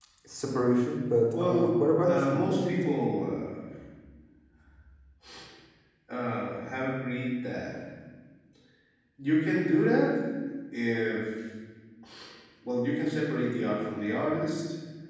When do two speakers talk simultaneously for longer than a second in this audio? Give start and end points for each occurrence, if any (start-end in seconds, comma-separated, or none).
1.3-3.0